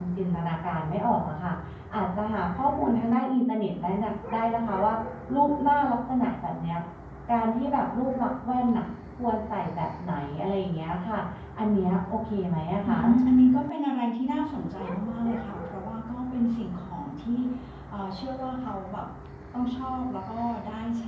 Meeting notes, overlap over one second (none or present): none